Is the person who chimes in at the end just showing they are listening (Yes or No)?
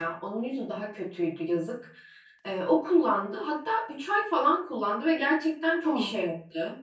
Yes